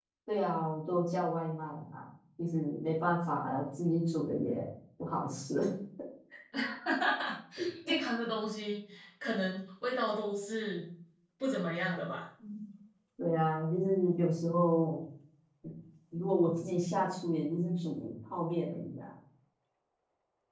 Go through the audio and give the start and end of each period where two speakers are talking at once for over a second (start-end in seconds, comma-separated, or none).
none